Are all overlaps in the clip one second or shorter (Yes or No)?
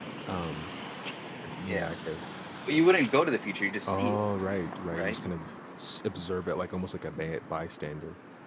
Yes